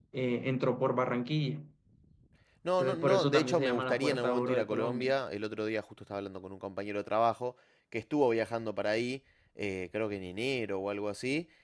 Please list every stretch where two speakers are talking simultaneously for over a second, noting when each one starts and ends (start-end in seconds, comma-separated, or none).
2.8-5.1